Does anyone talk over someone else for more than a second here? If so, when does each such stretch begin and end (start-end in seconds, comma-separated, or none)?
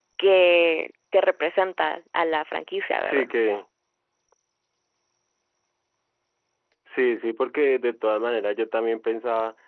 none